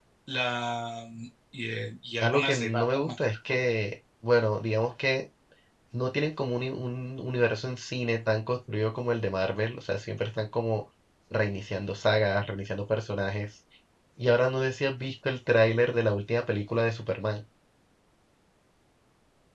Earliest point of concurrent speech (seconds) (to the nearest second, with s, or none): 2 s